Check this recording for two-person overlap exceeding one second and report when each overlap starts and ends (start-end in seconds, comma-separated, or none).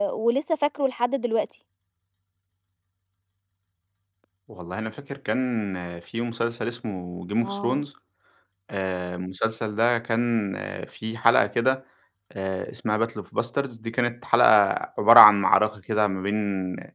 none